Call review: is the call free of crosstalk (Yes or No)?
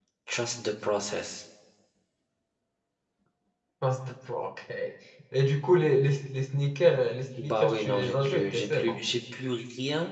No